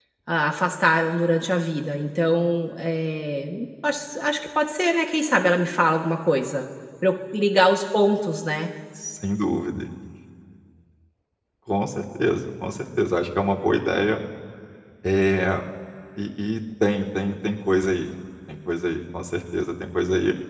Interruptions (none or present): none